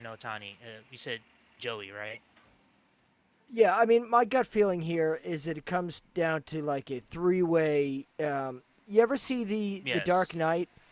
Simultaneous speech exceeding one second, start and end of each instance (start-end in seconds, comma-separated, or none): none